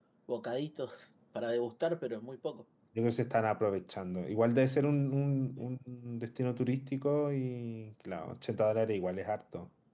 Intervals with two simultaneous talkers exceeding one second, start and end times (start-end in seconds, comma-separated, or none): none